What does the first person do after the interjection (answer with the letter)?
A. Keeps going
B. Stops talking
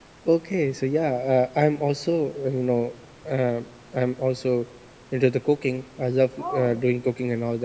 A